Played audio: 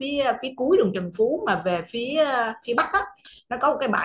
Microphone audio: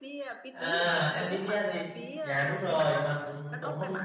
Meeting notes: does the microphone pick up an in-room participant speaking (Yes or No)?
Yes